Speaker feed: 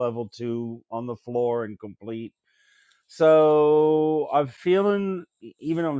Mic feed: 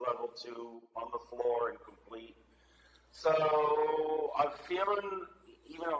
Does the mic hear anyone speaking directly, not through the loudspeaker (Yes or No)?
No